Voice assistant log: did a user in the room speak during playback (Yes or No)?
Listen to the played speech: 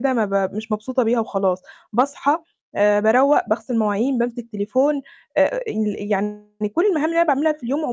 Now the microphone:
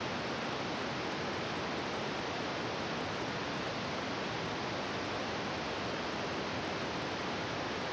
No